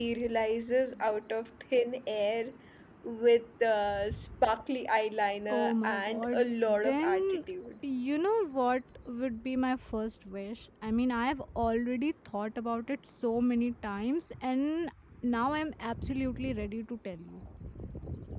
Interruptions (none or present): present